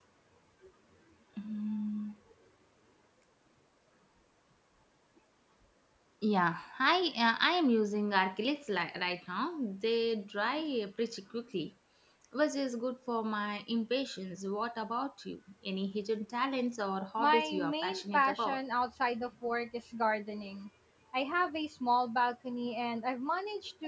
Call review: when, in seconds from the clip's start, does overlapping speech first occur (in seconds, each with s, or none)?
17.2 s